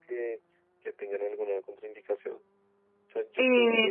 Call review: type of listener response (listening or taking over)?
taking over